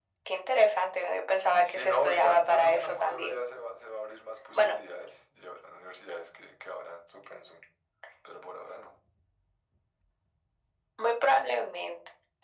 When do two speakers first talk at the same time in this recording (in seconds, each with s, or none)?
1.6 s